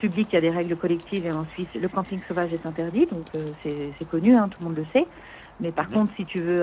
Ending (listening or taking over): listening